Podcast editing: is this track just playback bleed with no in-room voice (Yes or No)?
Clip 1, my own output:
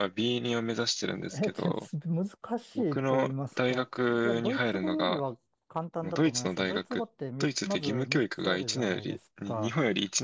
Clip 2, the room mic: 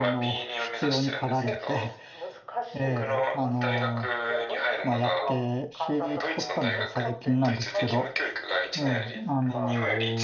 No